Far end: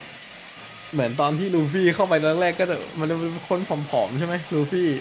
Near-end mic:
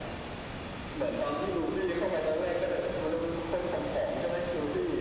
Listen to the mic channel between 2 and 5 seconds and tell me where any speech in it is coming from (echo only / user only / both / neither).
echo only